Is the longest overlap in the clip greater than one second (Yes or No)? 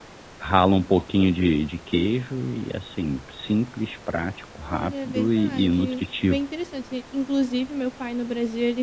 Yes